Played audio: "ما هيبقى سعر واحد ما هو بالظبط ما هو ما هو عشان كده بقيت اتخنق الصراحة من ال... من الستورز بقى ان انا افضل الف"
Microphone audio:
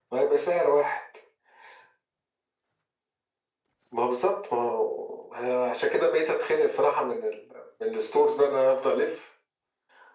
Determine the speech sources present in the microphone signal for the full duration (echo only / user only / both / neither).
echo only